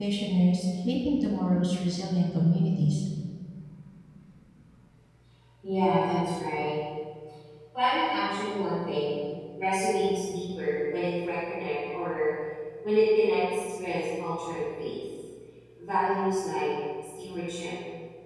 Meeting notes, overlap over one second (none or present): none